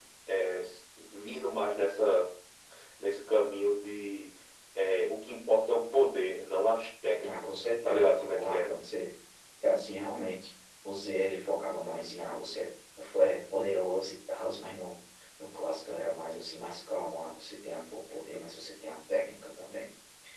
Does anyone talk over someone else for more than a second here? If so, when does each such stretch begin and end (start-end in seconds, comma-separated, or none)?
7.2-8.8